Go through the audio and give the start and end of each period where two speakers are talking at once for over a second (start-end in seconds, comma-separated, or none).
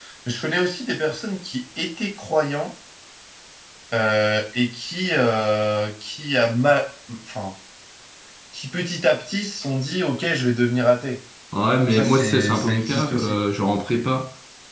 11.9-13.4